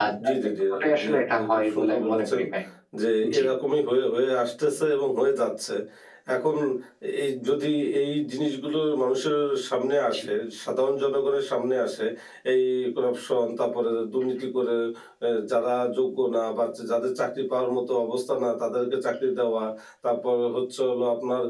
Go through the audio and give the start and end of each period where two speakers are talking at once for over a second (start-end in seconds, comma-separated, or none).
1.0-2.4